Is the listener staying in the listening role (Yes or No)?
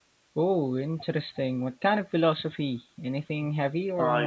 No